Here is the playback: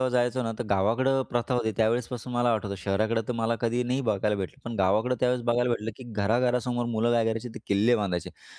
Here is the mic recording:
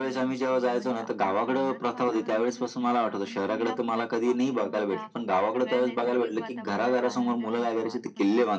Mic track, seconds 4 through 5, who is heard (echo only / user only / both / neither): both